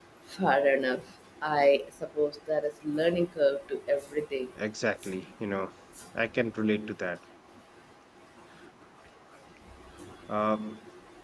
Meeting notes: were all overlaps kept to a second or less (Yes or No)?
Yes